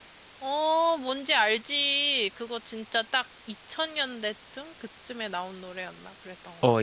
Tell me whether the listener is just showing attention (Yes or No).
No